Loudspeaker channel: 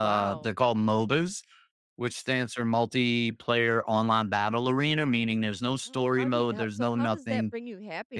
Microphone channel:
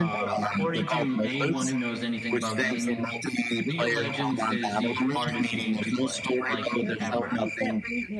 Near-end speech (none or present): present